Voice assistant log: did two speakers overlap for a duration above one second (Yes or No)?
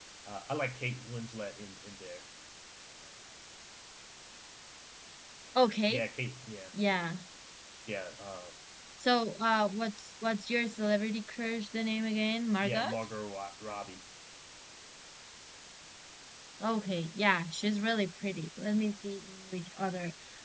No